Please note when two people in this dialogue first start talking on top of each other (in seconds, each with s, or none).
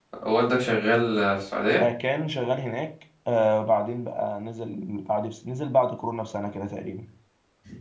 none